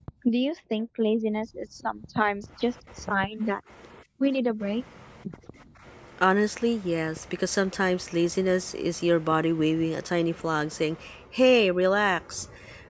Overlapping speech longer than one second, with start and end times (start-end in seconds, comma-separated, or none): none